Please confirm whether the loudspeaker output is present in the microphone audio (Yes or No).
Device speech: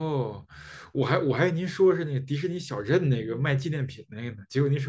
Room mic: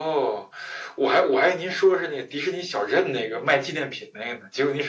Yes